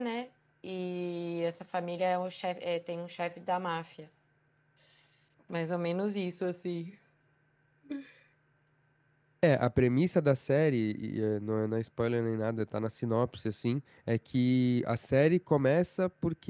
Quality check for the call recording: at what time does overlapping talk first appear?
none

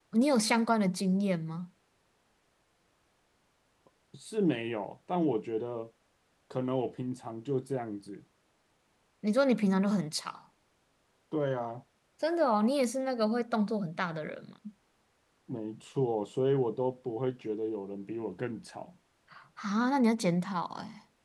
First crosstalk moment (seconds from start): none

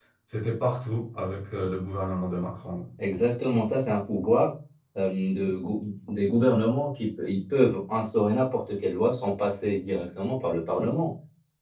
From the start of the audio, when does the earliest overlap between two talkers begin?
none

